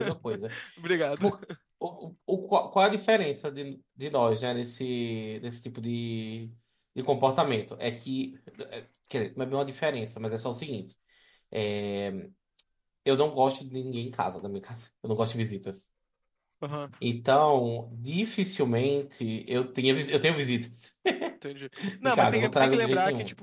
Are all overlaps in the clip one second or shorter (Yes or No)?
No